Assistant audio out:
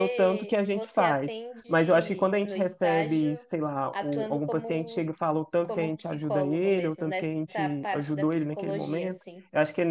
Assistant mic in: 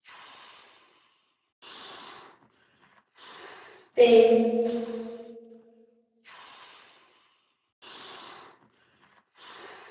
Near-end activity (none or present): present